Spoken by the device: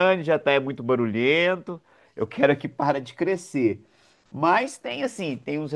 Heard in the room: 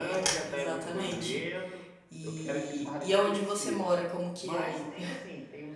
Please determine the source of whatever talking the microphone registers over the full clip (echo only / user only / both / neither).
both